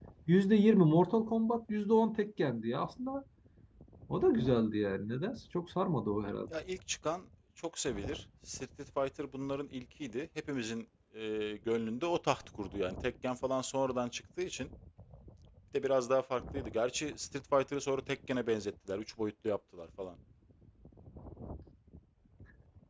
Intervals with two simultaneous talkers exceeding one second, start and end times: none

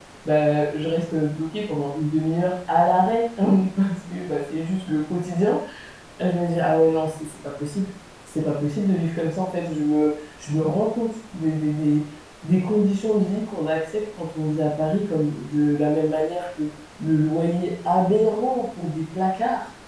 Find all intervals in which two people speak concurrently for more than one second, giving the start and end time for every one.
none

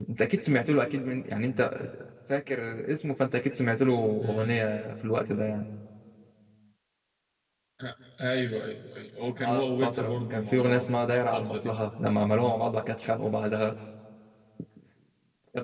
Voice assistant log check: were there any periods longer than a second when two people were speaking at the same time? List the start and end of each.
9.4-11.8

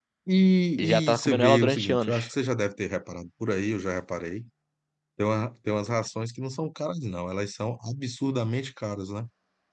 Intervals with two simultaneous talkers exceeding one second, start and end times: 0.8-2.3

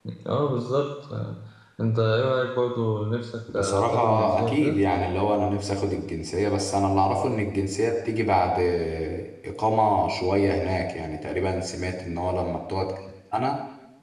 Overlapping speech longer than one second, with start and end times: 3.5-4.8

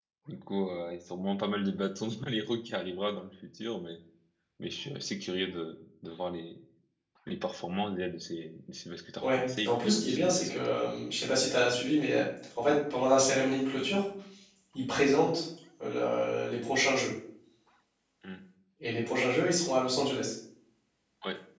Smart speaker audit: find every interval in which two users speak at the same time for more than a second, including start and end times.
9.2-10.9

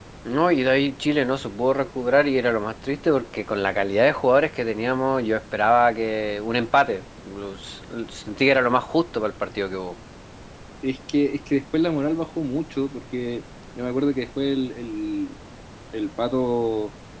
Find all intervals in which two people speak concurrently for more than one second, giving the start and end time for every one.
none

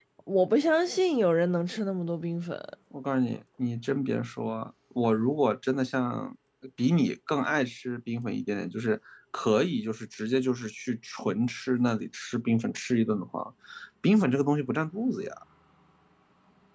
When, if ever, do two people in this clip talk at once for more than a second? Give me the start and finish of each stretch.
none

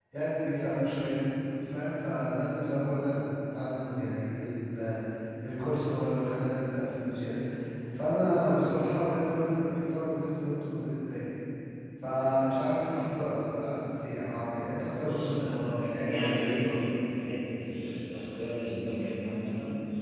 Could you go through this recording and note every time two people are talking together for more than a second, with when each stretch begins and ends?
15.0-16.6

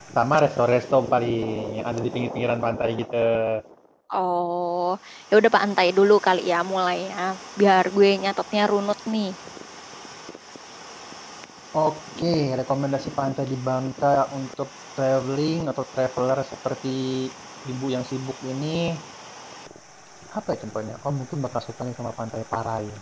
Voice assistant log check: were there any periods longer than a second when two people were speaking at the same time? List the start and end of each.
none

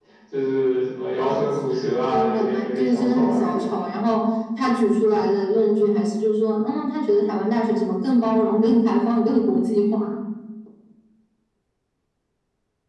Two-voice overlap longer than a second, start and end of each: 2.1-3.7

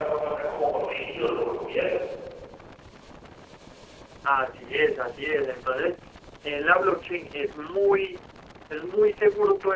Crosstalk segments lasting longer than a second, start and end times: none

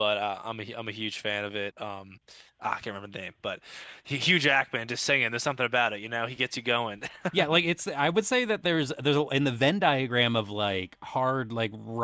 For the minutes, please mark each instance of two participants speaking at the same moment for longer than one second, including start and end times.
none

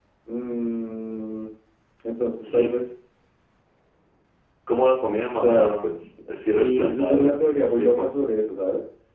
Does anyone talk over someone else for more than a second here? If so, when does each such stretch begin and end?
6.5-8.1

